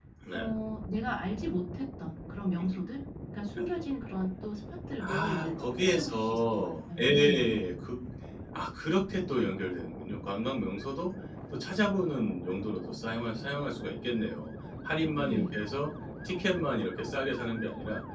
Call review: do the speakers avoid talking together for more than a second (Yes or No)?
No